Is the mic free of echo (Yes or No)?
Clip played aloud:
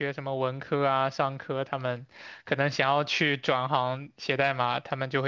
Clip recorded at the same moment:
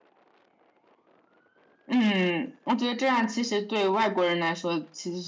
Yes